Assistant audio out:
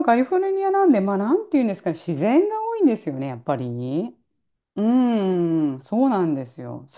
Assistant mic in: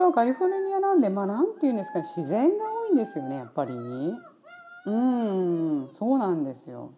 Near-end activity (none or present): none